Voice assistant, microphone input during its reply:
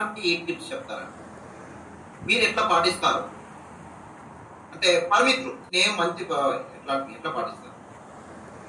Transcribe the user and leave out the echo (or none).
none